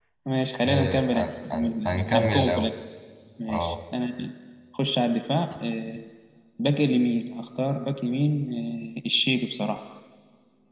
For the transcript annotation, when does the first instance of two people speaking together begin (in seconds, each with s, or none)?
0.6 s